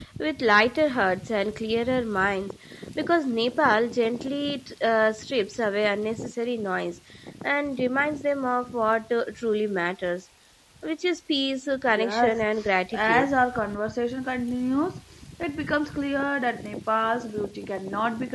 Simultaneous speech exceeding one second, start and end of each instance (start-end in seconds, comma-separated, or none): 11.9-13.3